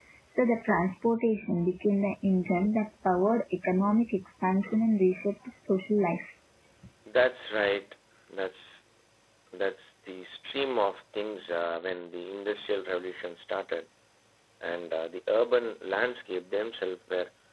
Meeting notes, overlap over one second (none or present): none